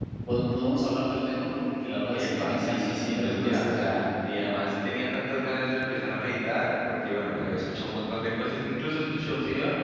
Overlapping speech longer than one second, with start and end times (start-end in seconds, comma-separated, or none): 2.1-4.0